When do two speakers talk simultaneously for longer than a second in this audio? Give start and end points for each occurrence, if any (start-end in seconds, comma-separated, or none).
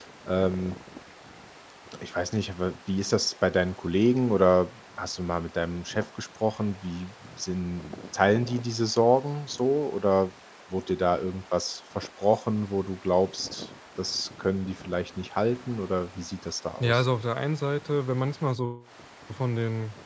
none